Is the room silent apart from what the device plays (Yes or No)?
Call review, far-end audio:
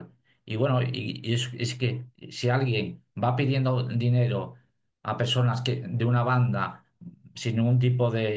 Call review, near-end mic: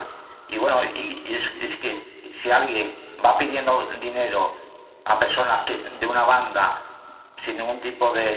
Yes